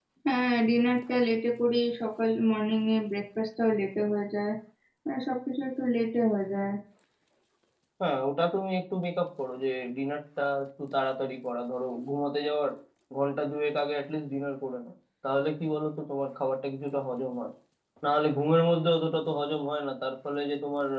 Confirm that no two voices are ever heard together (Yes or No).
Yes